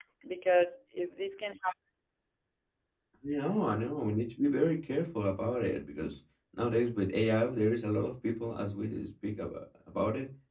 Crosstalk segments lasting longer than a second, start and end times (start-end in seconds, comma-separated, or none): none